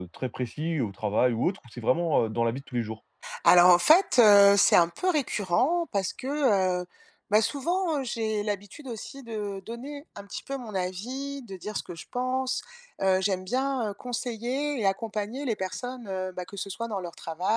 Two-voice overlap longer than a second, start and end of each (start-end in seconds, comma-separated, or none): none